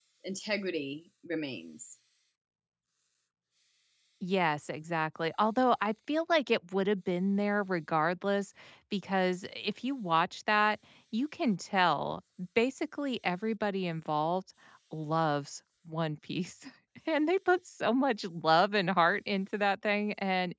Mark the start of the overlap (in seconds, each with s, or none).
none